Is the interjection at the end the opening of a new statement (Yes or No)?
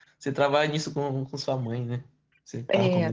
Yes